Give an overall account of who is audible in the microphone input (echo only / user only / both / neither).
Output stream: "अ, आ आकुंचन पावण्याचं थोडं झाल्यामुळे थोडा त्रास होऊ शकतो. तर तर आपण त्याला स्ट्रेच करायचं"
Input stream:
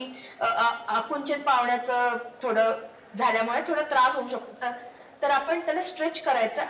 echo only